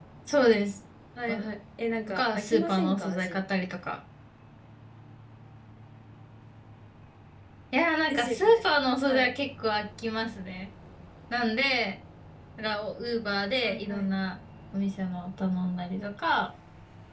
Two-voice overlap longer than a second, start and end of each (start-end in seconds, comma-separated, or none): 2.1-3.4